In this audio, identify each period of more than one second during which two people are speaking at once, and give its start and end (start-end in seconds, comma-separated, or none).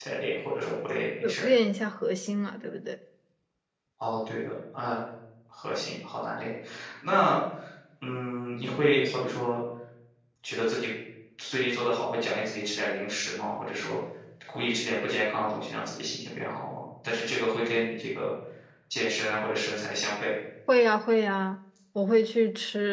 none